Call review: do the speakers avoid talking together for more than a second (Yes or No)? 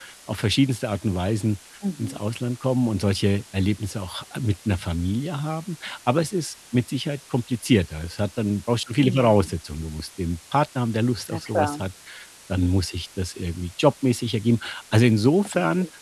Yes